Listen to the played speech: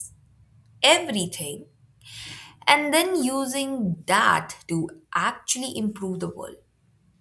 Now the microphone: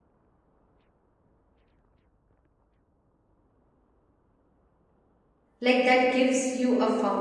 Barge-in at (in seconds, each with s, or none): 5.6 s